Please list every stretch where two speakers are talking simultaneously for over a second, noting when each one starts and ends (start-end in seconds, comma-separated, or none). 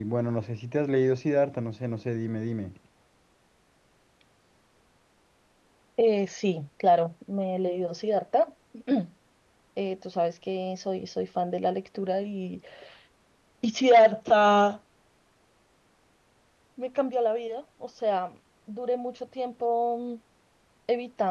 none